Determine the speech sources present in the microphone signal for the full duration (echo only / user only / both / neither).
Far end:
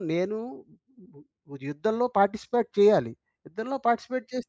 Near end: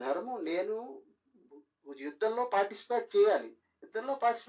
echo only